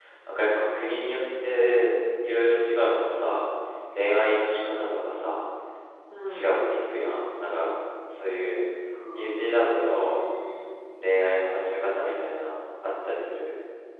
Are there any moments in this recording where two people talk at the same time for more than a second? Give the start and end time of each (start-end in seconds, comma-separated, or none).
9.0-10.2